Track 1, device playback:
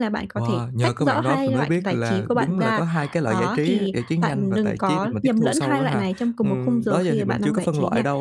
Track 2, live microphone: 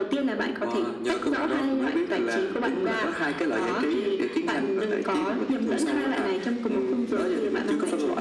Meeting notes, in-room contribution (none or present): none